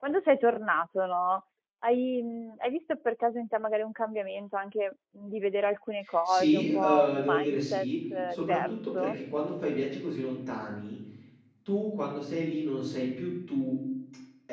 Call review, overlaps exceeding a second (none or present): present